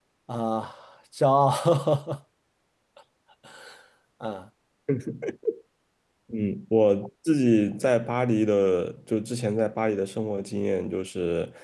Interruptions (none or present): none